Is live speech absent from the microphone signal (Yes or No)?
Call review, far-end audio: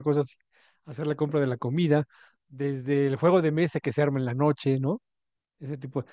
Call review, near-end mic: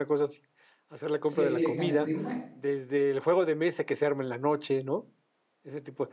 No